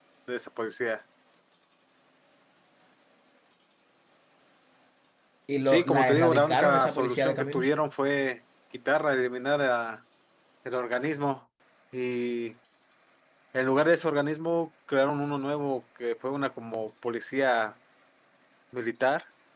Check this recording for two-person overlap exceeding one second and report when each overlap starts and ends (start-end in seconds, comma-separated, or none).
5.7-7.7